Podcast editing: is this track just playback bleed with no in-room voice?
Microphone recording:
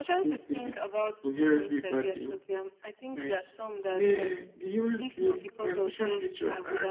No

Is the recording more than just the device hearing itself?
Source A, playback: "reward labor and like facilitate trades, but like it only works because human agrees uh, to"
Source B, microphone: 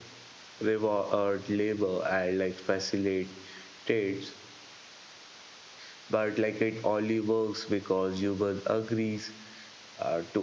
No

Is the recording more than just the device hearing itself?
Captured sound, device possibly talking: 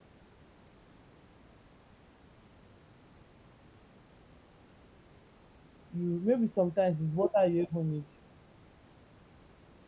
Yes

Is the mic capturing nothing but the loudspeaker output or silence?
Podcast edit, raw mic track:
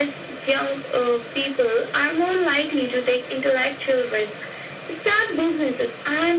Yes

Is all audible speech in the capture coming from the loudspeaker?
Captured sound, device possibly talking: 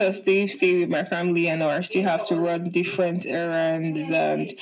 Yes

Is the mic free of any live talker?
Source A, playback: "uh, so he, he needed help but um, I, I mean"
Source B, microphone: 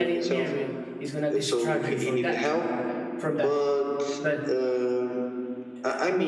No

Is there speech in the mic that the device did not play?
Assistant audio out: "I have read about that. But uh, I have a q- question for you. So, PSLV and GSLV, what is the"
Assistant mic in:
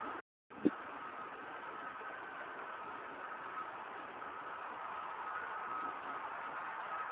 No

